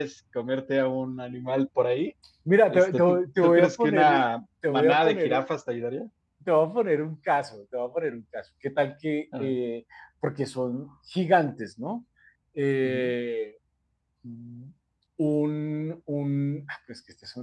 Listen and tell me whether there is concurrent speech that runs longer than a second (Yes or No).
Yes